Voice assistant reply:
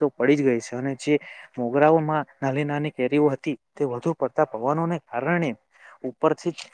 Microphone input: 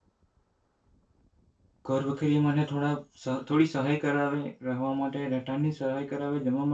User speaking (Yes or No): Yes